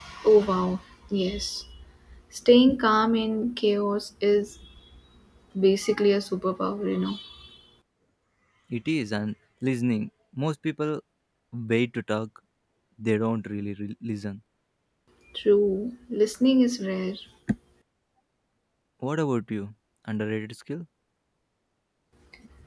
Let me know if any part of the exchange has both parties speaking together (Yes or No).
No